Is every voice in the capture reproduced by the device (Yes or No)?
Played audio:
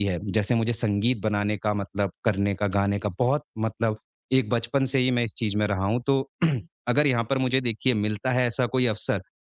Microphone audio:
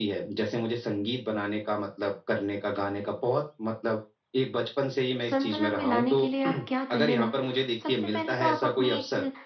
No